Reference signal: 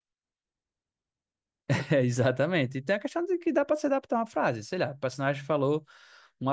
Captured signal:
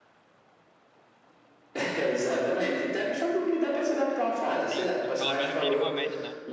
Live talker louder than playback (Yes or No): No